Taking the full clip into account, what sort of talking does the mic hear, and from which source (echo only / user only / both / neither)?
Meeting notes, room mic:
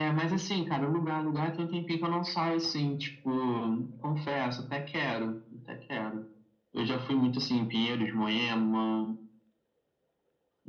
echo only